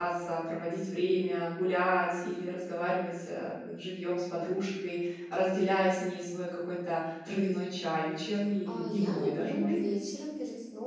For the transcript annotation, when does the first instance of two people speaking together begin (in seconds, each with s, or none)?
8.7 s